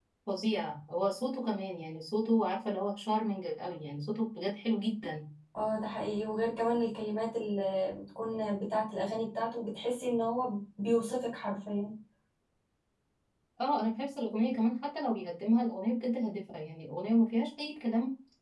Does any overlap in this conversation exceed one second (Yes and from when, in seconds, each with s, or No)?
No